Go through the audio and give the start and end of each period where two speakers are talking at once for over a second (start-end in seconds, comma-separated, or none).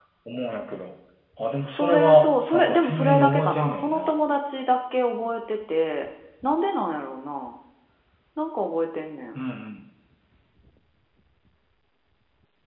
1.7-4.1